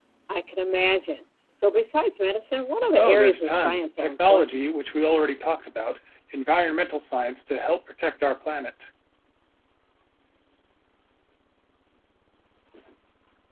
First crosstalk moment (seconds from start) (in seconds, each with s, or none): 2.9 s